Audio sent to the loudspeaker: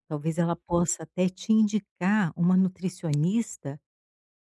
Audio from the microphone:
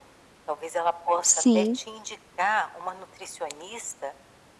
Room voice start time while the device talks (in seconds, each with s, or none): 1.3 s